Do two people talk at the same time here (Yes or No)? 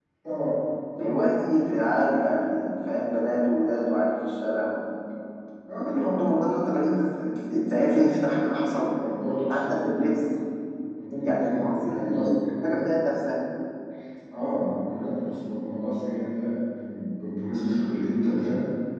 Yes